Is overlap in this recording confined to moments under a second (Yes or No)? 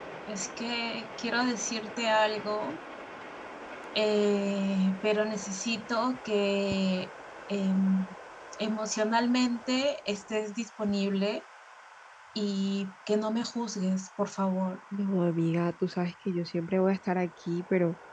Yes